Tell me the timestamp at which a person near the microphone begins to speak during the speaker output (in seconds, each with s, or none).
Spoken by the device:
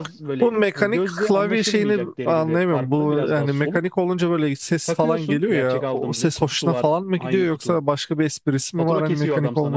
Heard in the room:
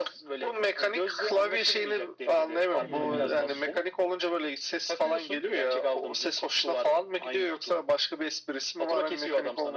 2.8 s